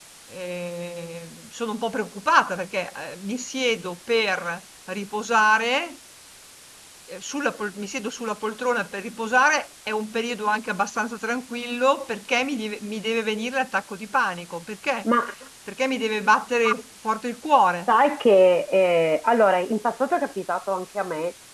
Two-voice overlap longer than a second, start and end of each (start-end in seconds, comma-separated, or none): none